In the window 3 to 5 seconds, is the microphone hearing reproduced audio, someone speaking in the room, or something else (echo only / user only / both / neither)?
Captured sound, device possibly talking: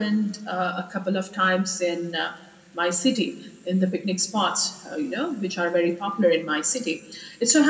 echo only